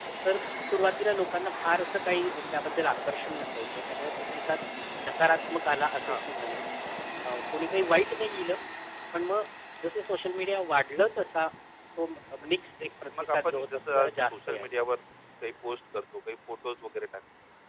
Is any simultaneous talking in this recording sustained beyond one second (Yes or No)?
Yes